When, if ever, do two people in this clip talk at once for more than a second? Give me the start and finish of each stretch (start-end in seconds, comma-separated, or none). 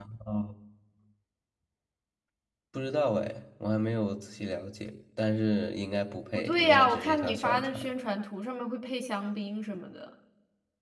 6.4-7.8